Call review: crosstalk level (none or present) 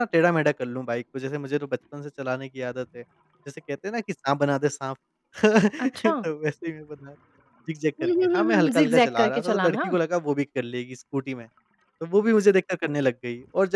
present